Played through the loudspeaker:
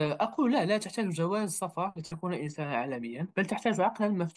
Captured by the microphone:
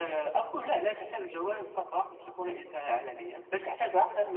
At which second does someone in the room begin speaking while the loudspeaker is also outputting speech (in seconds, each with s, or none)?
none